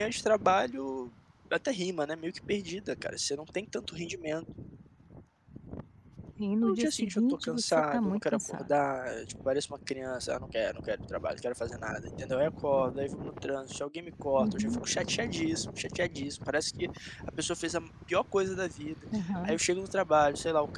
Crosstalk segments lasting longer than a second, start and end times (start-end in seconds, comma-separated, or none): 6.6-8.8